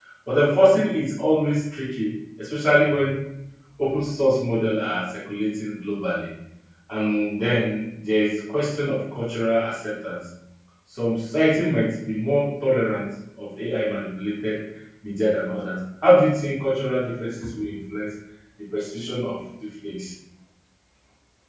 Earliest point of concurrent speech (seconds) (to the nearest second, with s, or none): none